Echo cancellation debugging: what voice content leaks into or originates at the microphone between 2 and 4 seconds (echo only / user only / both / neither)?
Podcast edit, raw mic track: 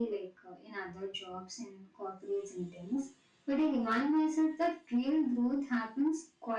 echo only